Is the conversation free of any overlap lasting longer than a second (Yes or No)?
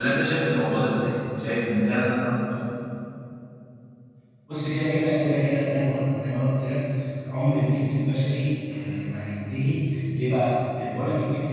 Yes